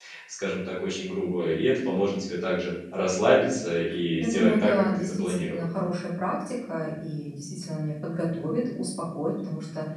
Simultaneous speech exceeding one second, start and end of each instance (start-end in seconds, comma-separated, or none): 4.2-5.7